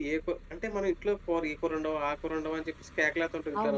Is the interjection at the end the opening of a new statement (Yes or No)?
Yes